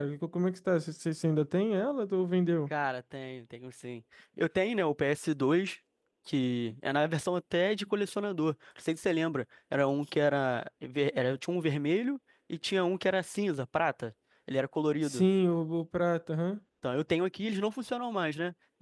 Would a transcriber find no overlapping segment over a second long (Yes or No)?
Yes